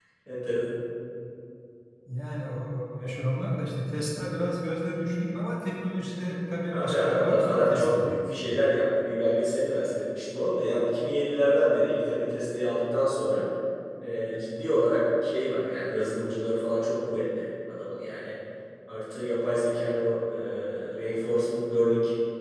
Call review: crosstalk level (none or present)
present